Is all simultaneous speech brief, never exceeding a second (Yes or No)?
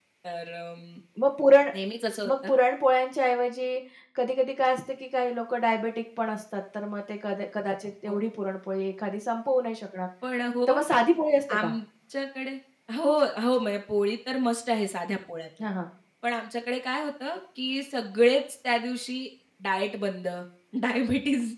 Yes